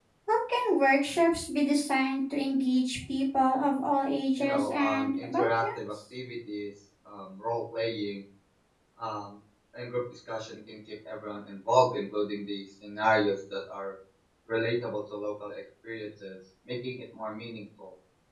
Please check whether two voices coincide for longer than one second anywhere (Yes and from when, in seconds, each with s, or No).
Yes, from 4.4 s